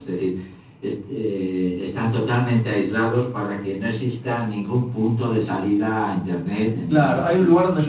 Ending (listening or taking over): taking over